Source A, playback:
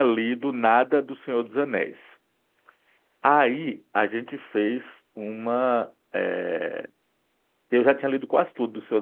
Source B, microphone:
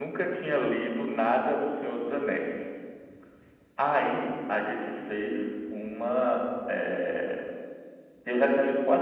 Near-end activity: none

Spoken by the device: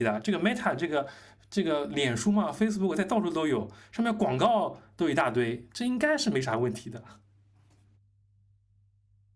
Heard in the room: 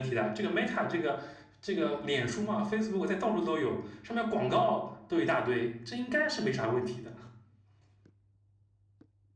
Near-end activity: none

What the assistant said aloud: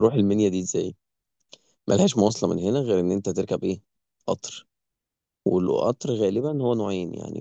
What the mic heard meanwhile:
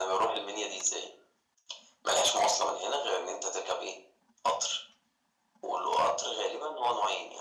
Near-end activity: none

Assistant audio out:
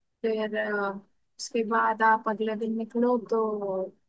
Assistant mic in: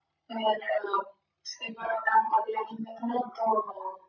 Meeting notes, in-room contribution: none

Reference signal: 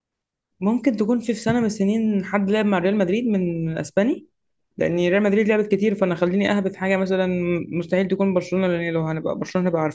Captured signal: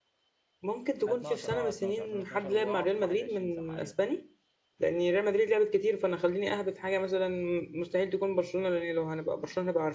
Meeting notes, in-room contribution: present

